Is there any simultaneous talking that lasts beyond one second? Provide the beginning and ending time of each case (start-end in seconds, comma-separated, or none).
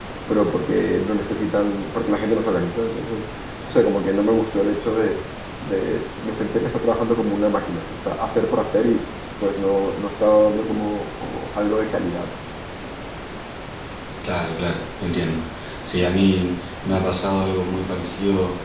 none